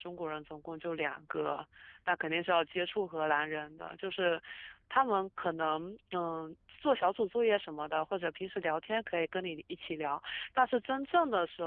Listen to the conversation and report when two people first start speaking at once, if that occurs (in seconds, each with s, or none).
none